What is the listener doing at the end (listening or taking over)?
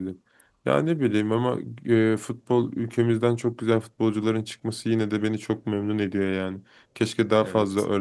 listening